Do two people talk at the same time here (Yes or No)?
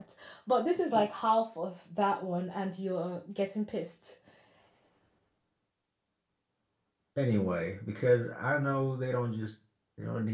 No